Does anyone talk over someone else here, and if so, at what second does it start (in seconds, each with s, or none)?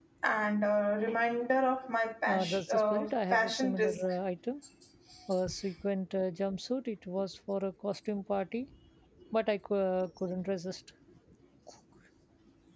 2.3 s